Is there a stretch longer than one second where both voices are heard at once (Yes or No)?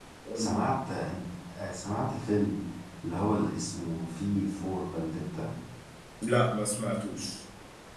No